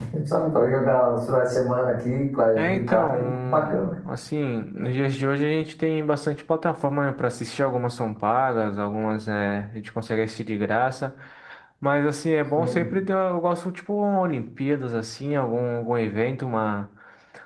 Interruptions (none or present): present